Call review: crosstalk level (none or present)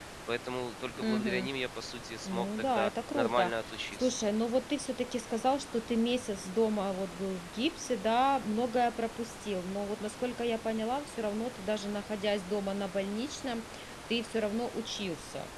present